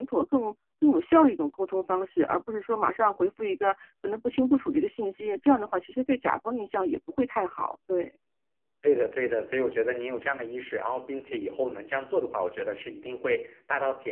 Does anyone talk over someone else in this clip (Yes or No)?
No